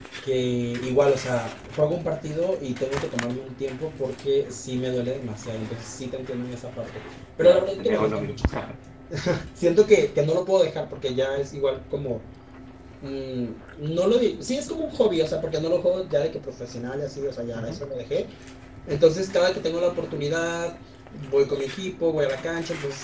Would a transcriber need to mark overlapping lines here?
Yes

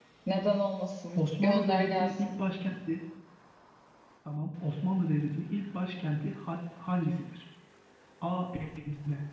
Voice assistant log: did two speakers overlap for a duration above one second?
Yes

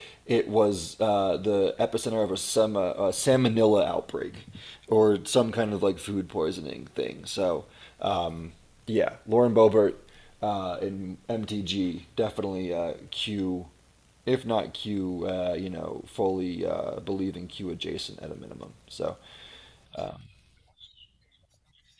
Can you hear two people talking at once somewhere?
No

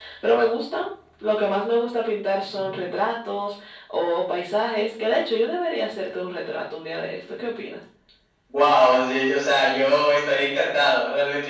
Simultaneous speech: No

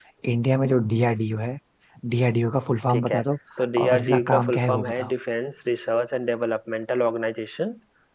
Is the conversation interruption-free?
No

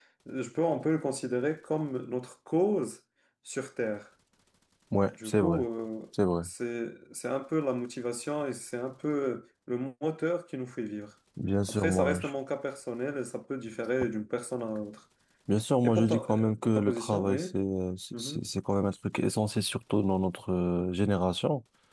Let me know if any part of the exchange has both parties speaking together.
Yes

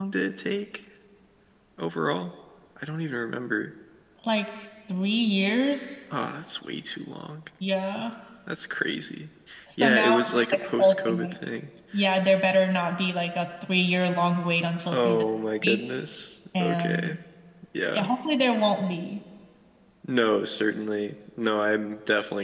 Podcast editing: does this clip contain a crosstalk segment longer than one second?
Yes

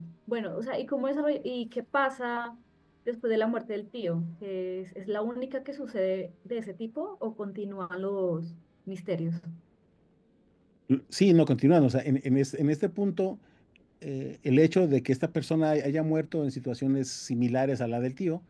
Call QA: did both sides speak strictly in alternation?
Yes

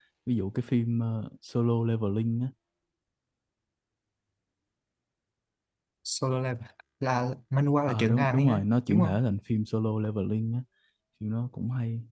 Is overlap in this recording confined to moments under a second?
No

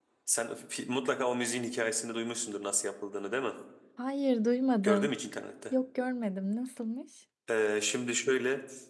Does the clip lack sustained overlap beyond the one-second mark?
Yes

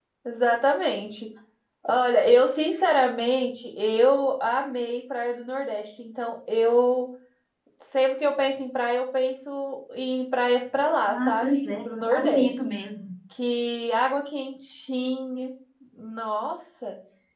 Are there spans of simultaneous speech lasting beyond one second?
Yes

